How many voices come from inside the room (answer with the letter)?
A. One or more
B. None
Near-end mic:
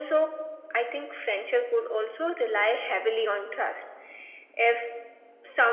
B